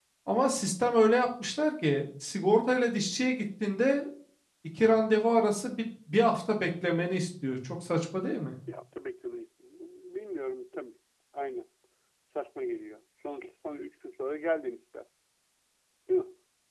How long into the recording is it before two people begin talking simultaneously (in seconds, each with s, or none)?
none